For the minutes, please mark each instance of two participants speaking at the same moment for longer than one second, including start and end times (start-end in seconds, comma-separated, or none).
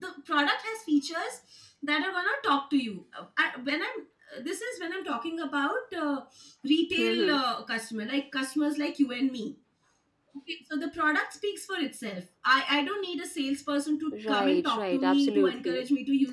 14.3-15.7